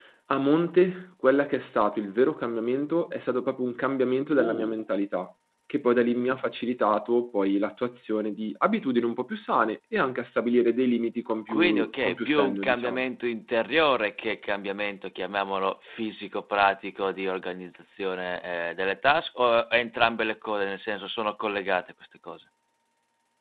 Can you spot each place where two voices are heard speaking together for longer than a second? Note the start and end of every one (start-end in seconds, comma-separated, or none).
11.5-13.0